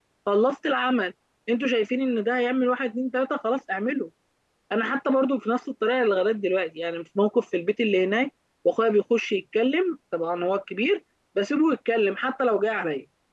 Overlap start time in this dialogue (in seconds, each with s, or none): none